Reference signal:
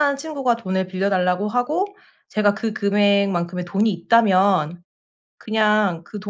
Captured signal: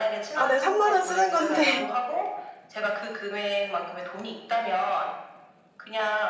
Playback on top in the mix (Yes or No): No